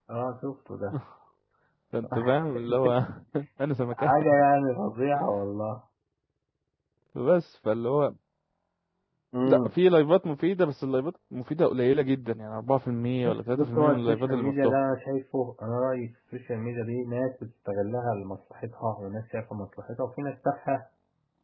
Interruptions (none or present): present